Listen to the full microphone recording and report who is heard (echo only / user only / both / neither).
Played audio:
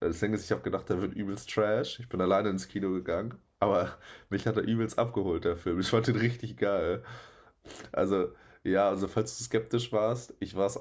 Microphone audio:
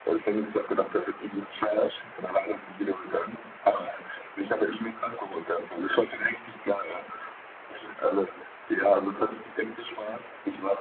echo only